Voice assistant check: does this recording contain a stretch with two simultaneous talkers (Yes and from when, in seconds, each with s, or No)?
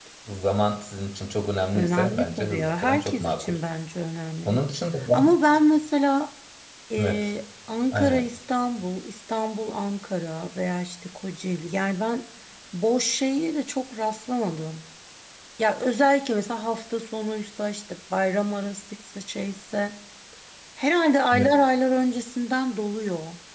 Yes, from 1.7 s